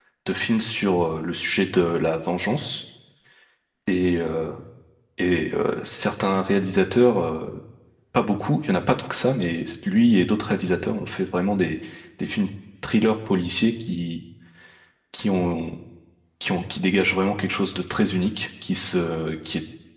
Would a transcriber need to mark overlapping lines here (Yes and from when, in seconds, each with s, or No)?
No